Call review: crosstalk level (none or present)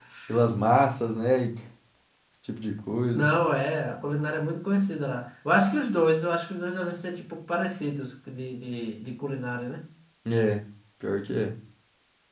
none